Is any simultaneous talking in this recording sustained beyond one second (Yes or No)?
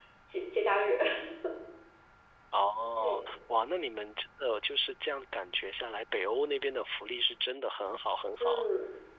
No